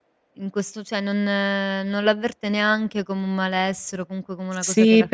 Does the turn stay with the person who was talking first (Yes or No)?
No